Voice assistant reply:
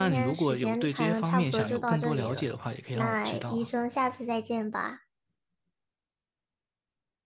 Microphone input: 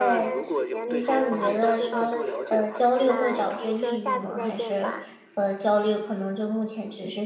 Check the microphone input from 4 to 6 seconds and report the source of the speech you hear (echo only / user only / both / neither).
both